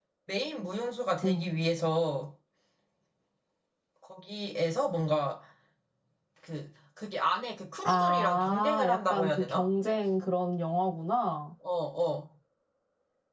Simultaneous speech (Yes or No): Yes